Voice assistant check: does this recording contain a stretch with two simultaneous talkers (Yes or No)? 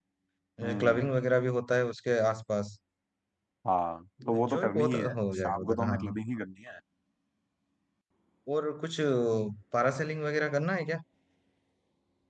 Yes